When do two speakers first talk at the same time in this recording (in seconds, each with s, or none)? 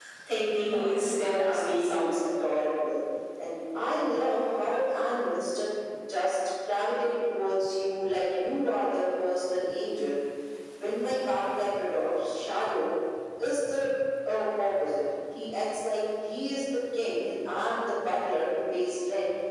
0.7 s